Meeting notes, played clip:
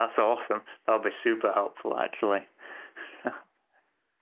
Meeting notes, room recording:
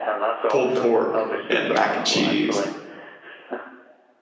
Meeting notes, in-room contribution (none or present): present